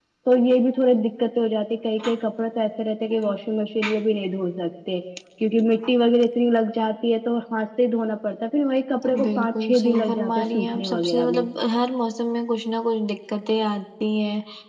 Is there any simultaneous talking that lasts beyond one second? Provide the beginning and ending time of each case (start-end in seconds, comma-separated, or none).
9.2-11.4